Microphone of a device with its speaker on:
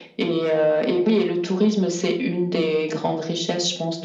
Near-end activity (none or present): none